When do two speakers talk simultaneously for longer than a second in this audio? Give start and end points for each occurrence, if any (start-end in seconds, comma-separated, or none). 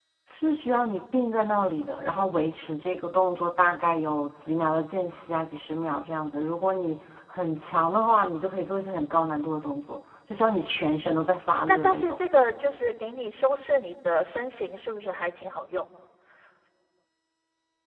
none